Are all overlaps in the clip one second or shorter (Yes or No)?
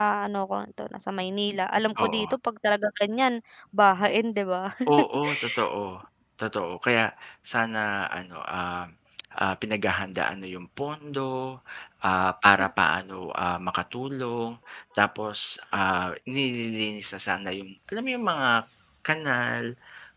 Yes